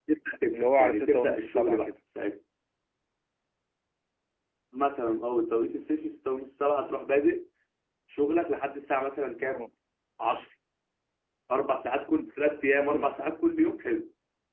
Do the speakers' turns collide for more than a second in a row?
Yes, from 0.5 s

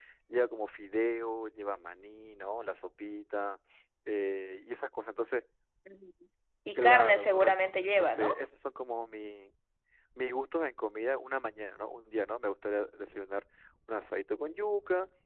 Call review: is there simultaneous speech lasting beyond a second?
Yes, from 6.8 s

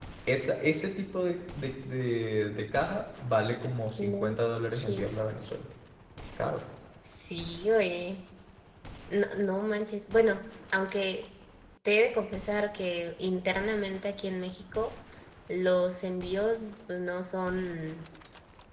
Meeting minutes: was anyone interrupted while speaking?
Yes, from 4.0 s

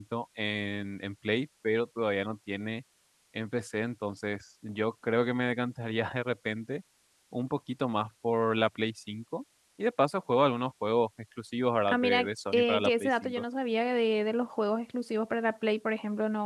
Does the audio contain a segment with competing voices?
Yes, from 11.9 s

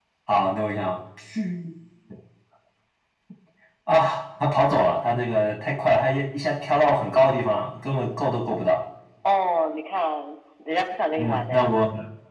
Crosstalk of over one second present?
No

